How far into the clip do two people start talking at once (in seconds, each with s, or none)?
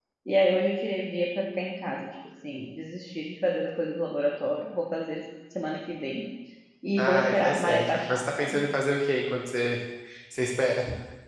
7.0 s